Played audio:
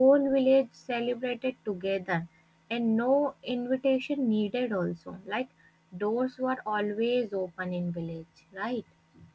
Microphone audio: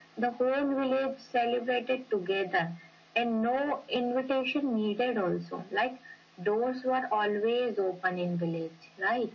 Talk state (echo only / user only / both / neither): echo only